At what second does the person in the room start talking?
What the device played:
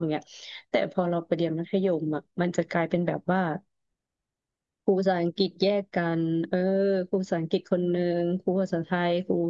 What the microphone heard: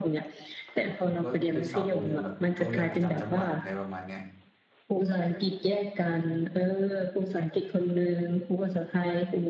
1.0 s

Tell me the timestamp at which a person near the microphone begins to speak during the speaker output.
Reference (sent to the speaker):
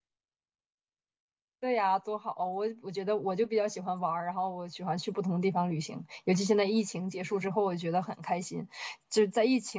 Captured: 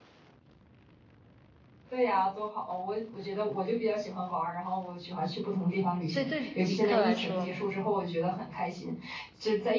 6.1 s

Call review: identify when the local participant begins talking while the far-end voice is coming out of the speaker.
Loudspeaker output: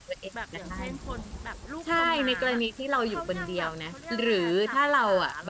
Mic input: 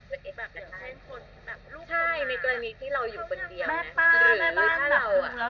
3.7 s

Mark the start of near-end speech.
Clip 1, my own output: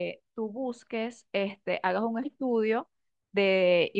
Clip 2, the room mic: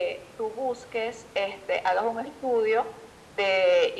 none

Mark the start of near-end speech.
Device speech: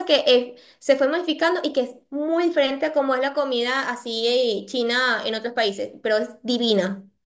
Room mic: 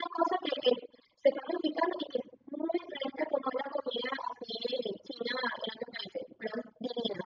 none

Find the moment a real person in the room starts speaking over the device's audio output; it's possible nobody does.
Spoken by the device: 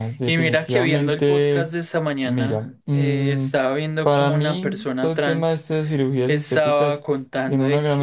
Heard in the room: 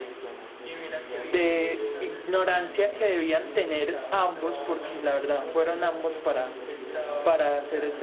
1.3 s

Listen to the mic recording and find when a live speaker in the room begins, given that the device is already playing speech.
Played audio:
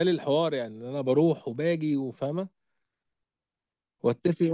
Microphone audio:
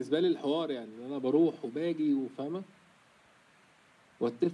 none

